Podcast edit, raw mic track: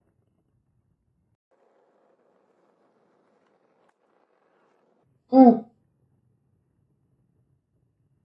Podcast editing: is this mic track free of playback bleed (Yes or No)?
Yes